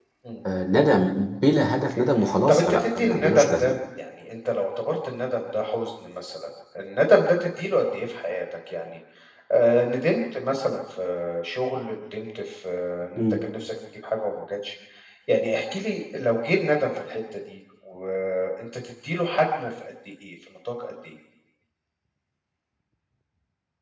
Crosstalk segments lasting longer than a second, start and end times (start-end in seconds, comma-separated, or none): 2.5-3.7